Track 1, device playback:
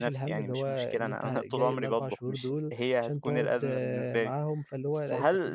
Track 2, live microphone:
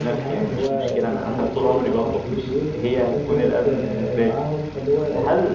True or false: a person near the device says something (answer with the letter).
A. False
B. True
A